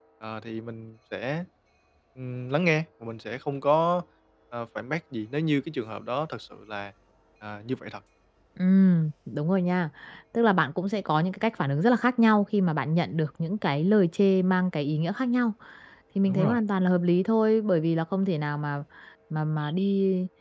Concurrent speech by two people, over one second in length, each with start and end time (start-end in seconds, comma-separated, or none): none